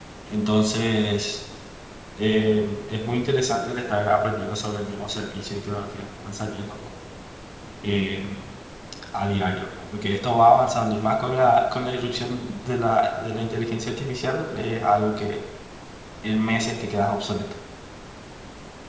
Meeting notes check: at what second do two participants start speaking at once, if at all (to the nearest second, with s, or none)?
none